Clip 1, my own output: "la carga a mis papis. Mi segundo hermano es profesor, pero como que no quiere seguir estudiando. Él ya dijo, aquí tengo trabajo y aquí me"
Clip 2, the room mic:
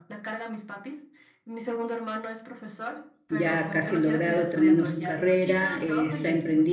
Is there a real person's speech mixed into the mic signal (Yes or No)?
Yes